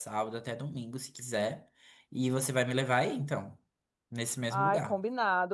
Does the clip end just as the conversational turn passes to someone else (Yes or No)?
Yes